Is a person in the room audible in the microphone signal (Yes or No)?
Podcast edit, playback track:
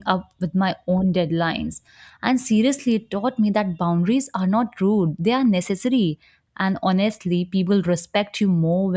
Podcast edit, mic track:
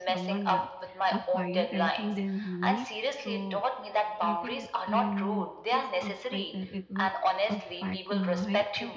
Yes